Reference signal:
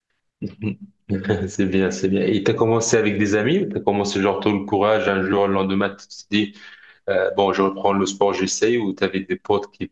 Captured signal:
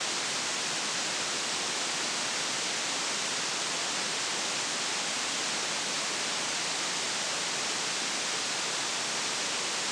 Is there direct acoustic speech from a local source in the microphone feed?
No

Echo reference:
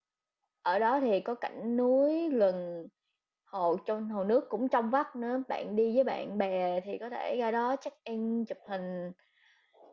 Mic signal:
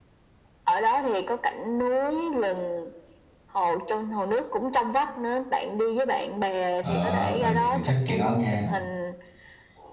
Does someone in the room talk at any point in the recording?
Yes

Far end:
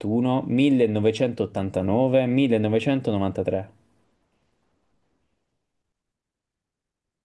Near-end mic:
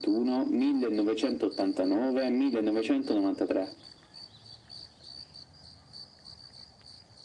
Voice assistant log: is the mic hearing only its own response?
Yes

